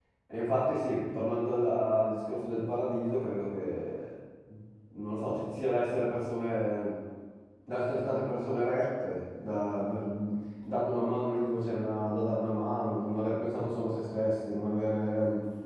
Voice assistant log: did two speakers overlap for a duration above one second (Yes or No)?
No